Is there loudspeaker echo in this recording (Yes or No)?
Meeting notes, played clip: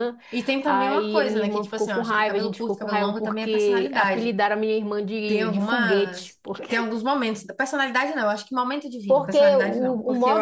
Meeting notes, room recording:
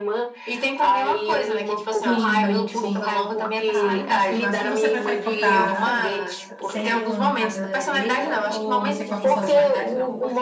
Yes